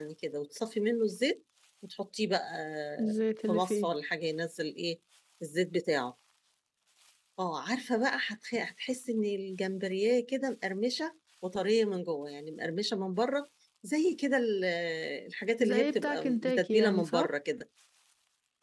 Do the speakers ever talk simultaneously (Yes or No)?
Yes